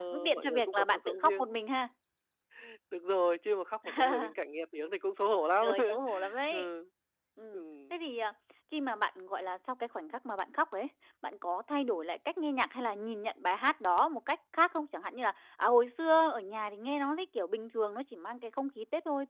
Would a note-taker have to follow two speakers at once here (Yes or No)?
Yes